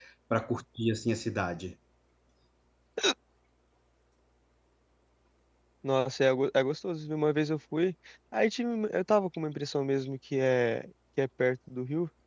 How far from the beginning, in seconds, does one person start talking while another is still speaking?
none

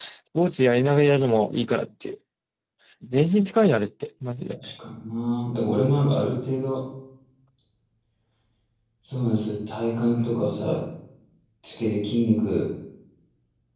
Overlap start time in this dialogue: none

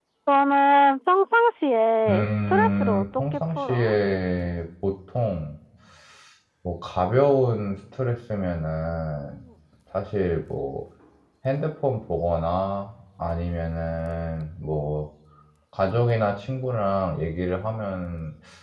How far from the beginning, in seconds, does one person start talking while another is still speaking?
2.1 s

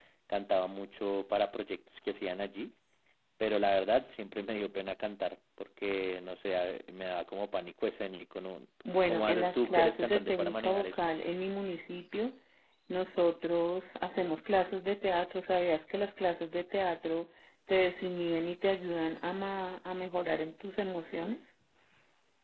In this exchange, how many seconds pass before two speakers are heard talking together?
9.1 s

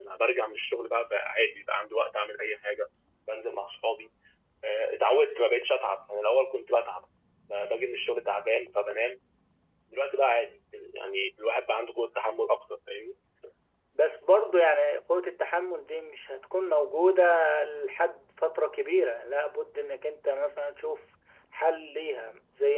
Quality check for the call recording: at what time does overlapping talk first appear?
none

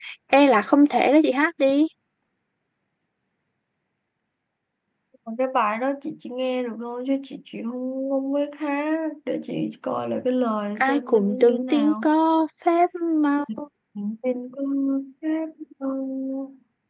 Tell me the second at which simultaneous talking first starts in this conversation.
10.8 s

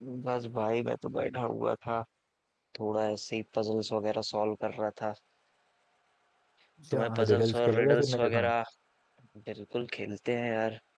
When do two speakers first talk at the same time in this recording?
6.9 s

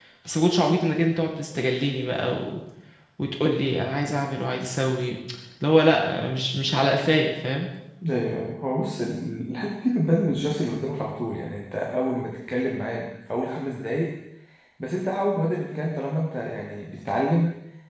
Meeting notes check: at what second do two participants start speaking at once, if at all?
none

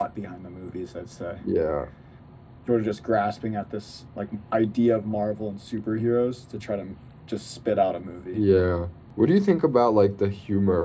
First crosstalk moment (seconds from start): none

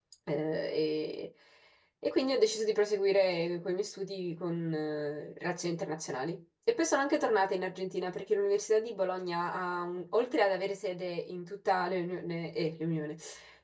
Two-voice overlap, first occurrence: none

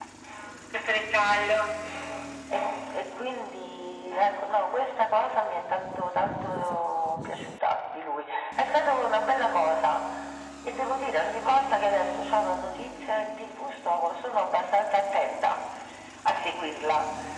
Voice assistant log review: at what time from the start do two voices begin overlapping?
none

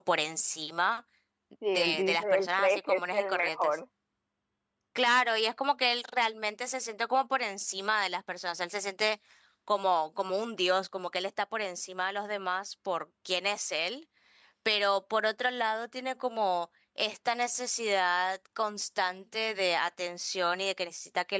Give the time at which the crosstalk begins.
1.8 s

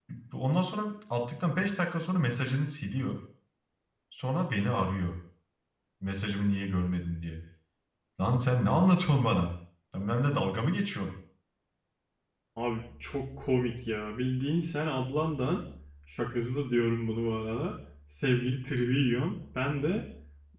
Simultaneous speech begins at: none

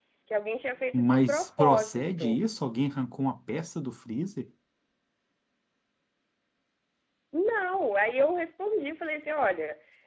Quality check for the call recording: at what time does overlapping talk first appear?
0.9 s

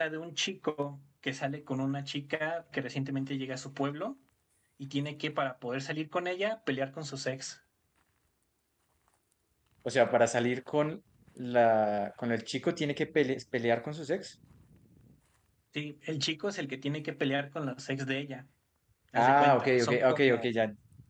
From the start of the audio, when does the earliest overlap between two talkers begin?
19.1 s

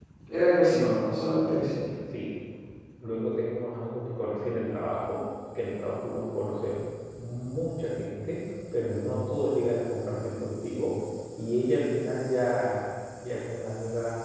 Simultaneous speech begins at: none

